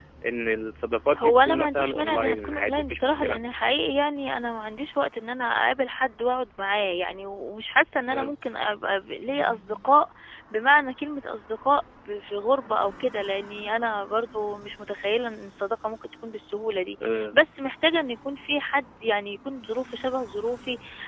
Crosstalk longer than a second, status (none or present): present